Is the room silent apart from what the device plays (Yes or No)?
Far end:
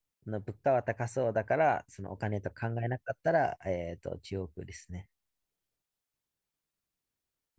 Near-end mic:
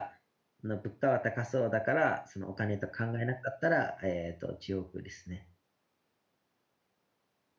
Yes